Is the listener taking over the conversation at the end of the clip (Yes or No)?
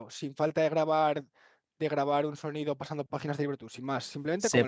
Yes